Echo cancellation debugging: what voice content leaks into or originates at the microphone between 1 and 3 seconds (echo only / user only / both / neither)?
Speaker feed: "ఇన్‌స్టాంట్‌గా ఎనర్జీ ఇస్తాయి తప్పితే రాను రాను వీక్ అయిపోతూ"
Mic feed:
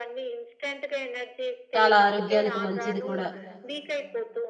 both